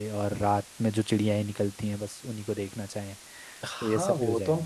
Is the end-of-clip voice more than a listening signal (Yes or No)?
Yes